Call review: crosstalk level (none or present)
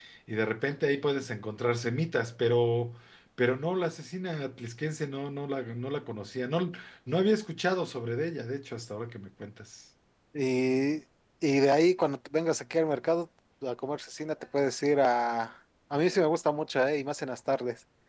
none